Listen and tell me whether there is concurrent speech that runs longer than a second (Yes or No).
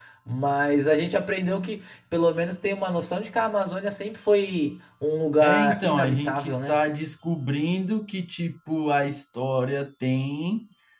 Yes